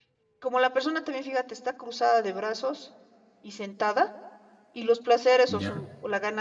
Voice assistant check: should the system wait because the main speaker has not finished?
Yes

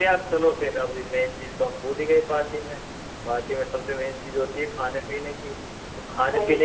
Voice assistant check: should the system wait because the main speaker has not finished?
Yes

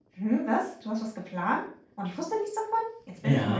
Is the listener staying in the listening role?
No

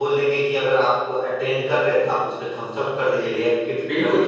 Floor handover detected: Yes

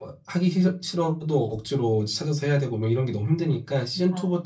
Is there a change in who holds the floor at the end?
No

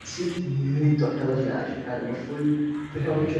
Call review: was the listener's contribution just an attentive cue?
Yes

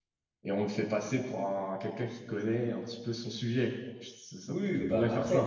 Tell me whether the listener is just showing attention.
No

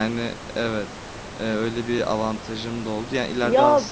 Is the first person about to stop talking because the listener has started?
No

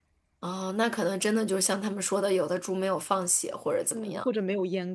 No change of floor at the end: No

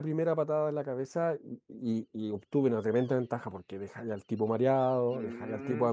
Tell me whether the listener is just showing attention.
No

